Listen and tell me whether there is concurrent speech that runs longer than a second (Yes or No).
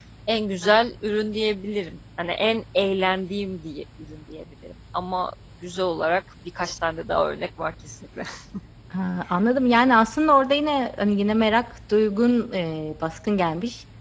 No